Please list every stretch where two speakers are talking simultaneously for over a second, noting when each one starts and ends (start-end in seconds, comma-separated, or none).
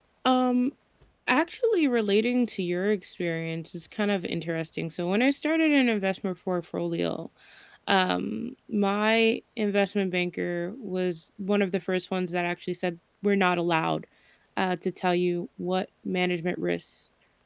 none